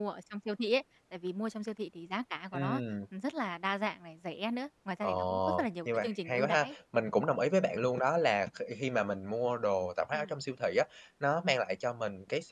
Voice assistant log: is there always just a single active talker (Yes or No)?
No